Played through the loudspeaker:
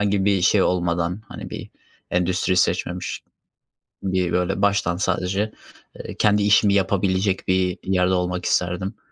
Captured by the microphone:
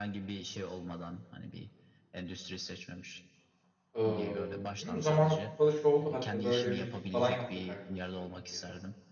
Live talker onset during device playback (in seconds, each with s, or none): 4.0 s